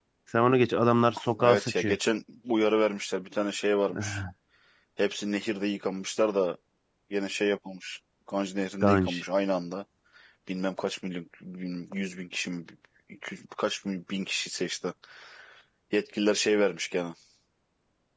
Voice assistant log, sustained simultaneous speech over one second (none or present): none